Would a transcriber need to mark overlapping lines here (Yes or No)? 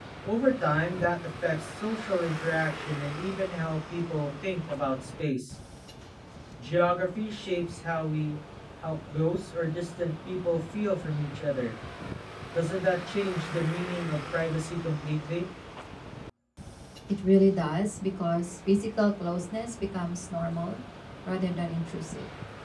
No